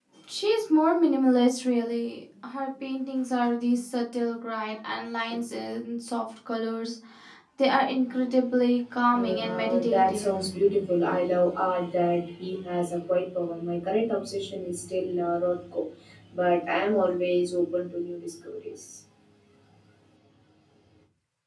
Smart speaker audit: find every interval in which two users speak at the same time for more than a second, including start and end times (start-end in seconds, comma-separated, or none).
9.2-10.4